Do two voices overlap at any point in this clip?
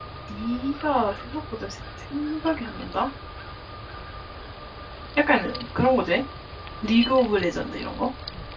No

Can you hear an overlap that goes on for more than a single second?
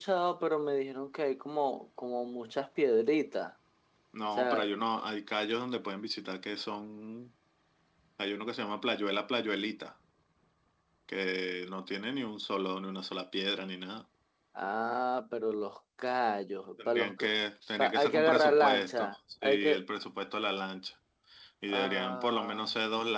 Yes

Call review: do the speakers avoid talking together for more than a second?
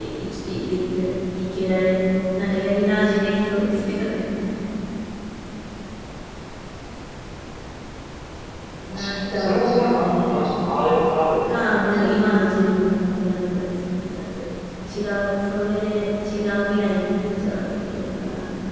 No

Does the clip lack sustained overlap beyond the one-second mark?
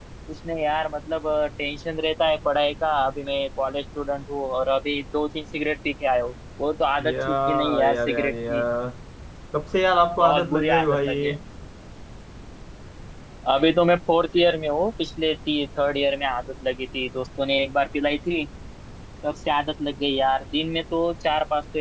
No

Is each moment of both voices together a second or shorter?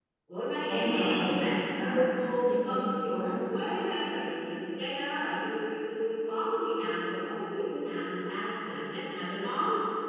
No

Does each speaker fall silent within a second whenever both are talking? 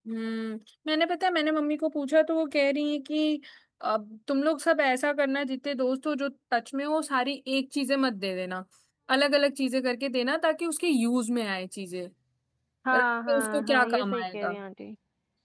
No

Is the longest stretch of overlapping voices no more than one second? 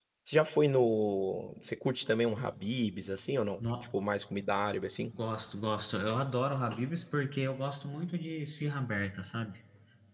Yes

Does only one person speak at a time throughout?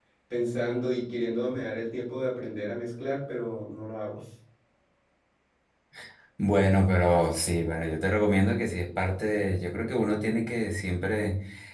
Yes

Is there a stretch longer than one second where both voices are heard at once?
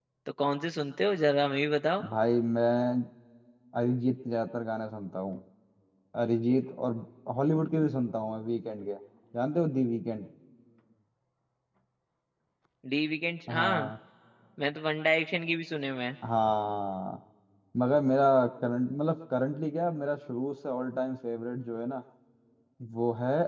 No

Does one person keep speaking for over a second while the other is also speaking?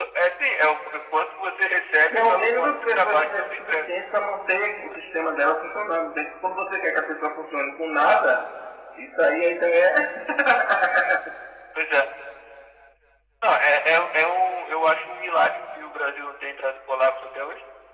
Yes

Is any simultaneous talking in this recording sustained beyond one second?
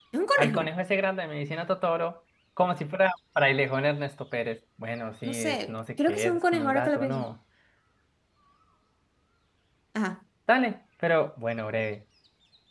Yes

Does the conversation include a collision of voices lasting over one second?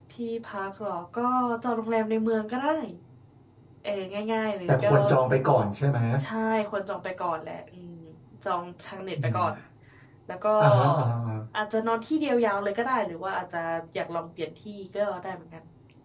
No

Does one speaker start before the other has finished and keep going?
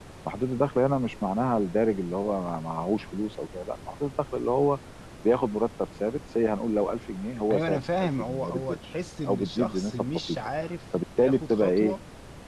Yes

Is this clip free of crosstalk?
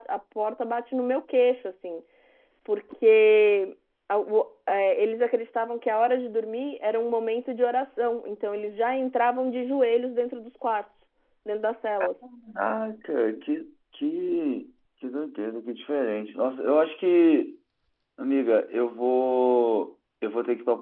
Yes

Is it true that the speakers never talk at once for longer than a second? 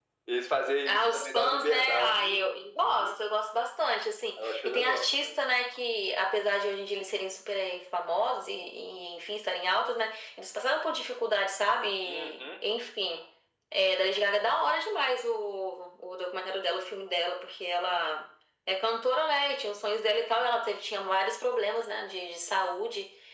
No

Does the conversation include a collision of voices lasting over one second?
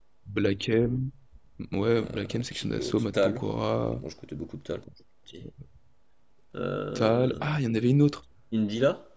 Yes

